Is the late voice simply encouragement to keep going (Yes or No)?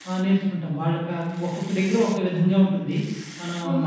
No